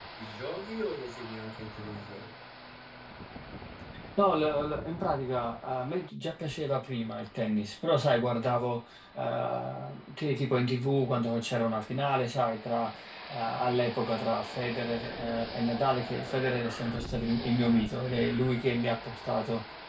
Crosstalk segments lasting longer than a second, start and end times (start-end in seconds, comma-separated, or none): none